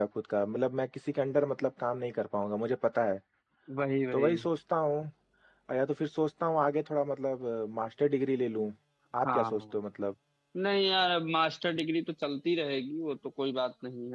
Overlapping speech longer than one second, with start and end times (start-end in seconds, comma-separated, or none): none